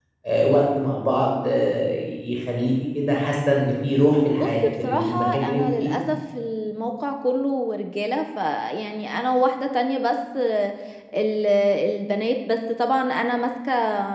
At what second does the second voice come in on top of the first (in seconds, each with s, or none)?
4.4 s